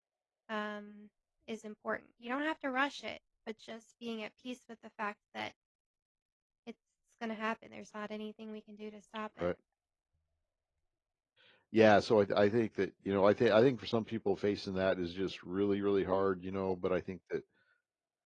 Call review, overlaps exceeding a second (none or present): none